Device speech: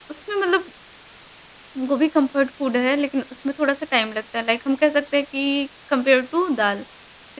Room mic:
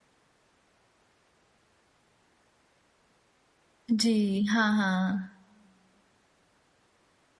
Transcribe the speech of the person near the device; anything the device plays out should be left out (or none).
जी, हाँ, हाँ।